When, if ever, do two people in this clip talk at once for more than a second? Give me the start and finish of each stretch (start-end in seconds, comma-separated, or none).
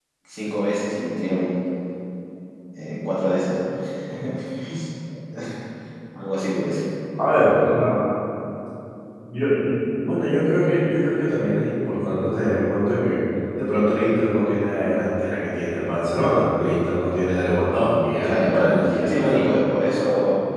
18.2-19.5